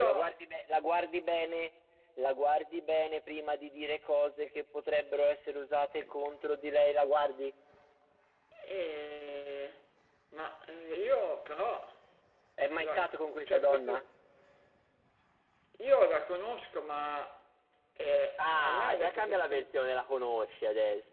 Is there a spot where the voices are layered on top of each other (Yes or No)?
Yes